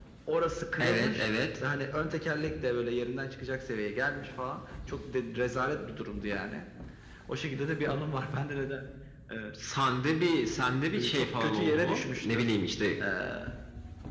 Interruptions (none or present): present